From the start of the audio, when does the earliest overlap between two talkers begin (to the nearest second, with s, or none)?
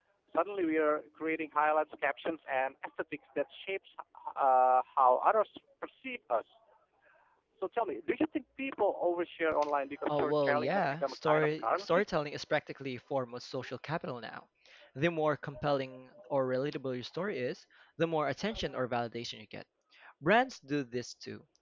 10 s